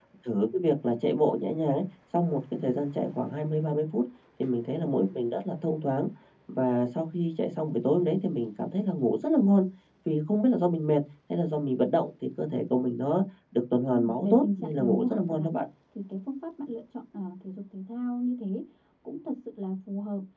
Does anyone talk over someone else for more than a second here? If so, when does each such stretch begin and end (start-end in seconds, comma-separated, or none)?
13.9-15.6